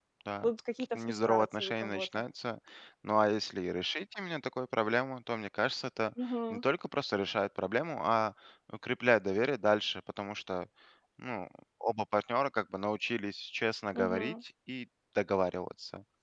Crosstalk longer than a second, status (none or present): present